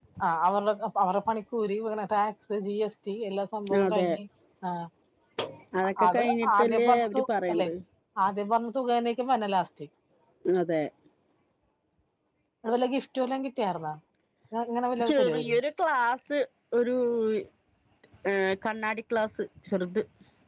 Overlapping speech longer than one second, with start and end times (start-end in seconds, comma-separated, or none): 6.1-7.7